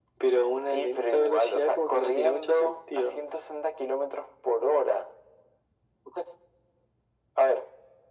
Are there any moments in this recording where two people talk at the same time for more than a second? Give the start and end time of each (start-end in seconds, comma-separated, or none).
0.7-3.2